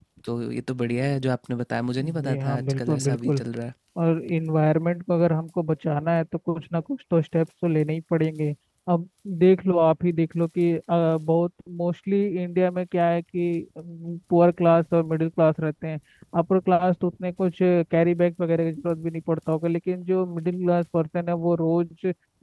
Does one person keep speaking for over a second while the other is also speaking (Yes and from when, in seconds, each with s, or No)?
Yes, from 2.0 s